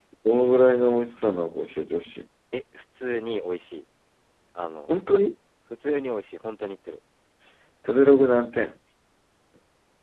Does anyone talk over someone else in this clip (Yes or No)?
No